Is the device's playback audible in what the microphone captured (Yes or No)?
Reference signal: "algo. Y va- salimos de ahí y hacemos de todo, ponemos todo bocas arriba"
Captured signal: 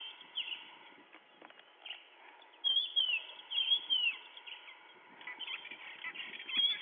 No